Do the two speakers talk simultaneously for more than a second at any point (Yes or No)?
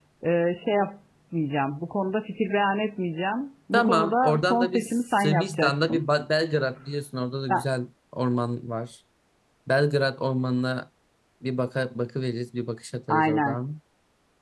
Yes